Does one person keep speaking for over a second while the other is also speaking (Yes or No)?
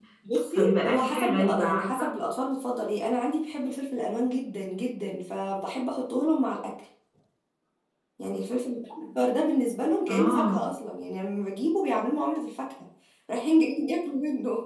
Yes